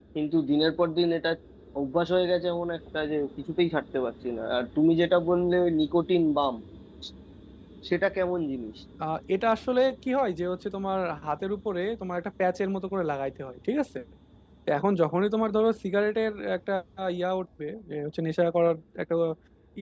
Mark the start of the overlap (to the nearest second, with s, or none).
none